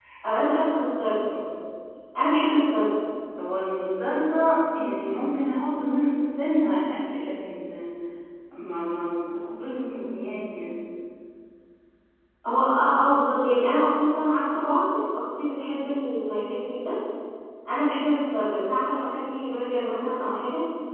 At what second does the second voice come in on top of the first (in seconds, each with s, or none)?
none